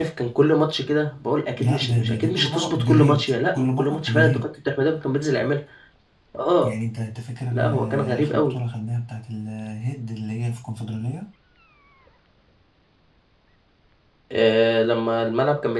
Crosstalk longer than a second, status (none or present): present